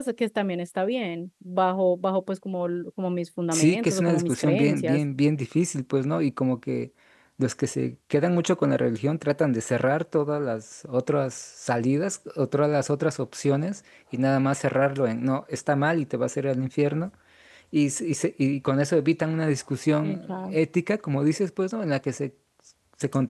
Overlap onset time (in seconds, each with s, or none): 3.5 s